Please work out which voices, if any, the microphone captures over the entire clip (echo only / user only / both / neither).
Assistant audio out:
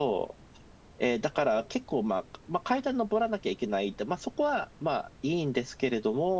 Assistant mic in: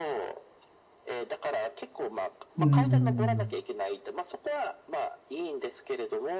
both